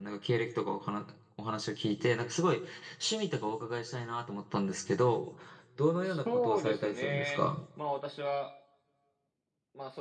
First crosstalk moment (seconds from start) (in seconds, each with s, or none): 6.0 s